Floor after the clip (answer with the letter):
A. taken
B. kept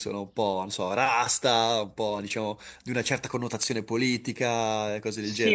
A